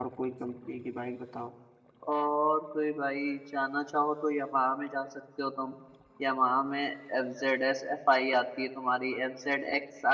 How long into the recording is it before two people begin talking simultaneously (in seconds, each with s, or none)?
none